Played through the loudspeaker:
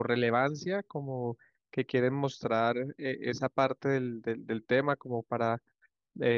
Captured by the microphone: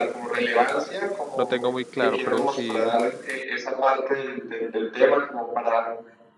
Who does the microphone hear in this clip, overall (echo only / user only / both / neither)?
both